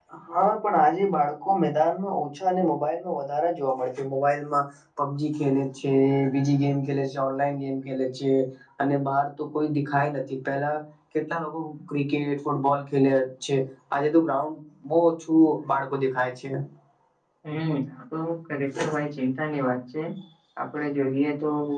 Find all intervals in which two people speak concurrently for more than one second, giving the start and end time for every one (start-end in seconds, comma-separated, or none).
none